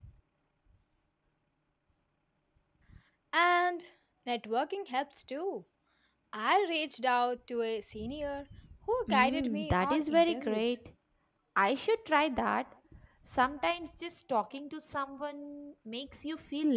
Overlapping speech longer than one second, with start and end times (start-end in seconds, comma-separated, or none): 9.1-10.7